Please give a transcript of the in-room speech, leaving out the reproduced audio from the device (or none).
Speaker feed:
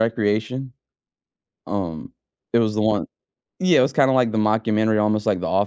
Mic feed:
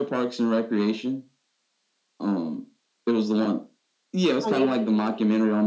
It's on you